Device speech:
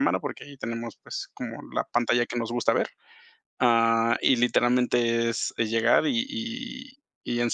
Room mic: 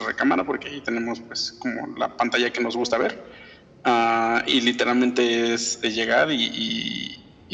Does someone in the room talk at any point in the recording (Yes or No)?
Yes